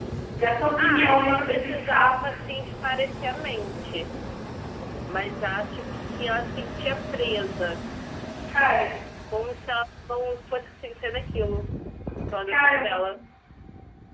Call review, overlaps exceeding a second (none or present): present